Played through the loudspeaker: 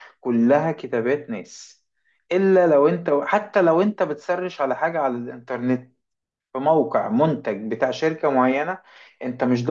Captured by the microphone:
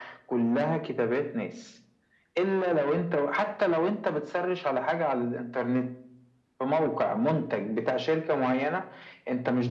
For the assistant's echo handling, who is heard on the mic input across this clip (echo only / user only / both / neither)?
echo only